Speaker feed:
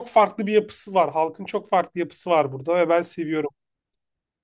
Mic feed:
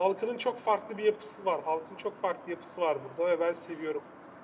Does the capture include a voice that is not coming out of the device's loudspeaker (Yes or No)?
No